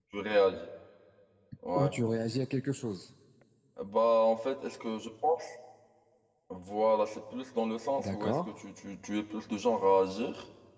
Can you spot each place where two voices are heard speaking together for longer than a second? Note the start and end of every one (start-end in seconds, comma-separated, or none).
none